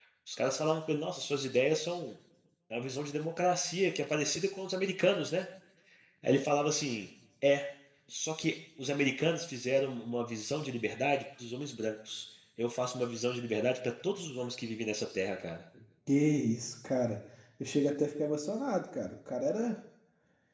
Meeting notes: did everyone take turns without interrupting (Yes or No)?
Yes